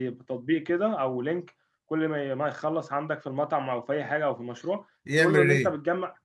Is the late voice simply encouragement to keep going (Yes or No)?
Yes